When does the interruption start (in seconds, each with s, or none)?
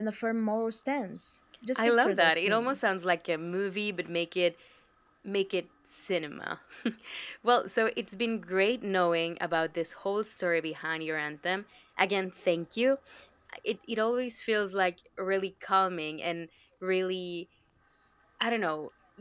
1.8 s